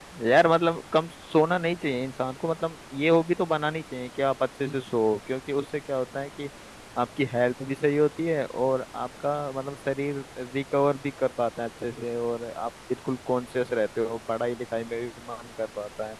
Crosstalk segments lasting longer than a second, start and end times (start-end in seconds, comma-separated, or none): none